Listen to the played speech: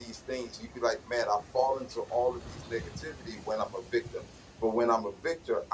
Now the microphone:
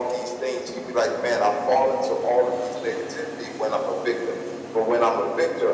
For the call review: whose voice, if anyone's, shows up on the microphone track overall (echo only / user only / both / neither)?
echo only